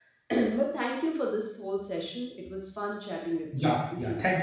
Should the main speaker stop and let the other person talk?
Yes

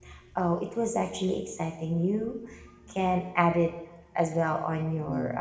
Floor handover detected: Yes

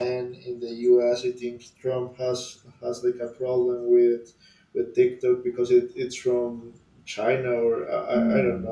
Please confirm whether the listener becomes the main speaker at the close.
Yes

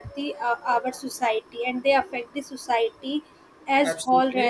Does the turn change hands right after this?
Yes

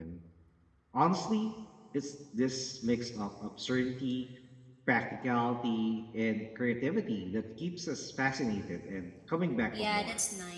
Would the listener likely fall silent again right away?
No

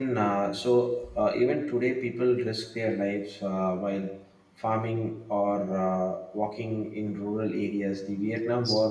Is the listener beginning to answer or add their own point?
No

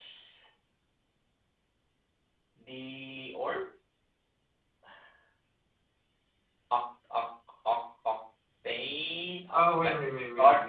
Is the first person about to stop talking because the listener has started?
Yes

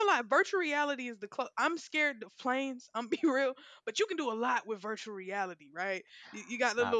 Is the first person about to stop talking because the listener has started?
No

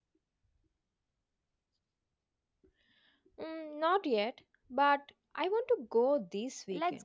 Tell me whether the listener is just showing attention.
No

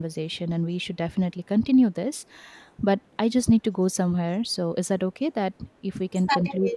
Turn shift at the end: Yes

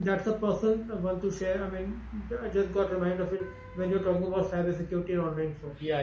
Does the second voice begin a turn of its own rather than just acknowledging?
Yes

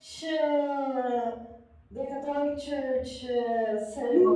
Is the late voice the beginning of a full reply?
Yes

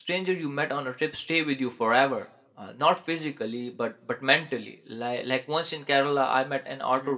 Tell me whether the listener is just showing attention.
Yes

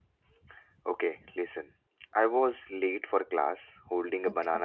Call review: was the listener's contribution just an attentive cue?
Yes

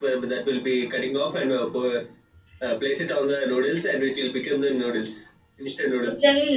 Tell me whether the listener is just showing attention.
No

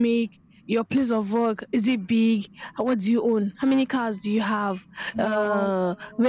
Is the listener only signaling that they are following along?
Yes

